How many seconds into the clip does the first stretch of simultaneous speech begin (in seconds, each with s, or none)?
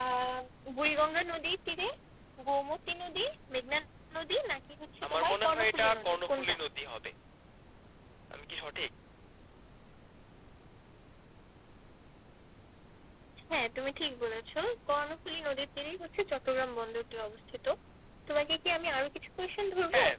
5.0 s